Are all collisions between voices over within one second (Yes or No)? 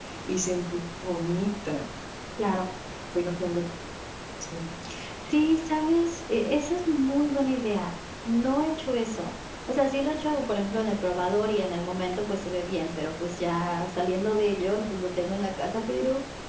Yes